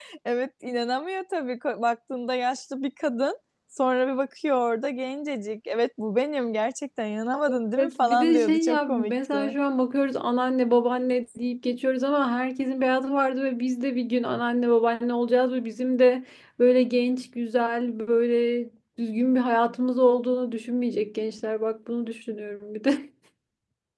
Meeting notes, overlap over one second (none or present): present